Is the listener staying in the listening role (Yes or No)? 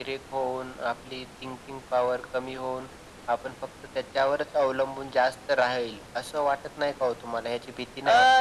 No